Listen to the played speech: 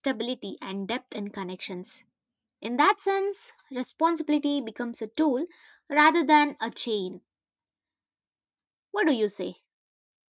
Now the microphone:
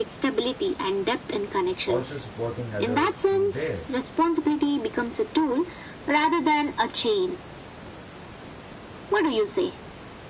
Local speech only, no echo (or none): also supporting others through theirs.